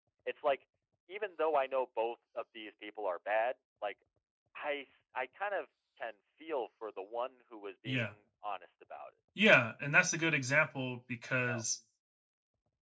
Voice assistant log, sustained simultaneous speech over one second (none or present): none